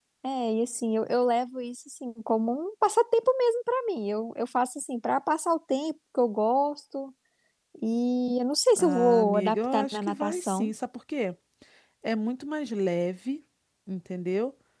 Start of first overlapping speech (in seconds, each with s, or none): 8.8 s